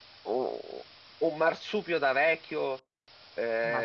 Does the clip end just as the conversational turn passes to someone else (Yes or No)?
No